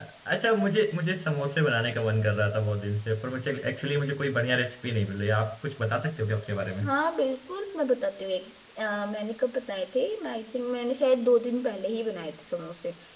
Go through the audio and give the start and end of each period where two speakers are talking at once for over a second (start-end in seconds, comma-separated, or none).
none